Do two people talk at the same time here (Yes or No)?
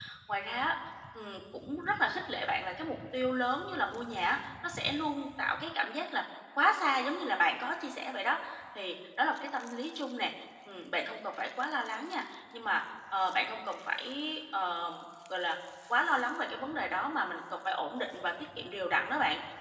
No